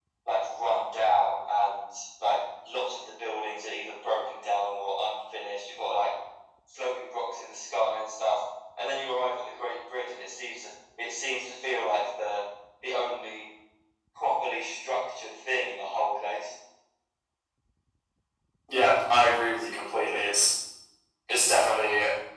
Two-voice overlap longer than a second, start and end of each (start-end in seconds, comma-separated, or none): none